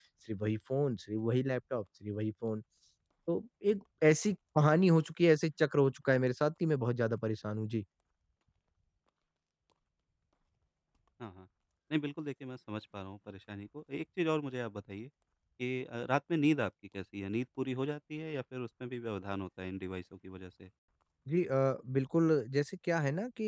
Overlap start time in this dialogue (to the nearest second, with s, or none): none